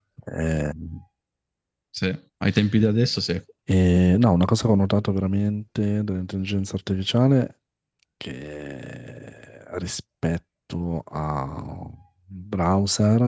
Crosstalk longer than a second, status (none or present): none